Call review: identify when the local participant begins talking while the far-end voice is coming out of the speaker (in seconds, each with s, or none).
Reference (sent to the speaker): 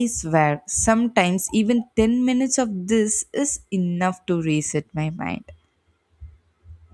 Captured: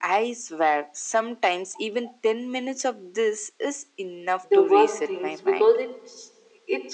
4.4 s